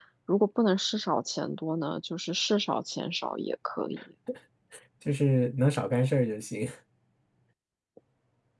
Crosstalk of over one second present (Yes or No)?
No